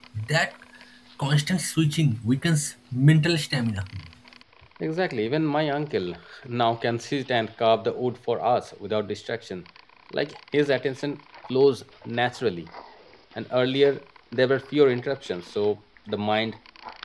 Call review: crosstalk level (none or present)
none